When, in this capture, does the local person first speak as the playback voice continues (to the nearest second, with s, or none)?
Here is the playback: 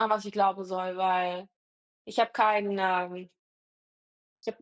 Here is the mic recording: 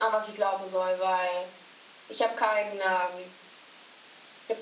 none